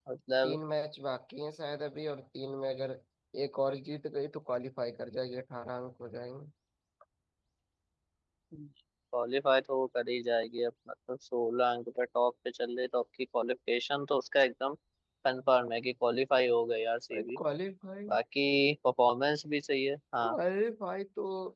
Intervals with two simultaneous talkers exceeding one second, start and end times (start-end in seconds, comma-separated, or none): none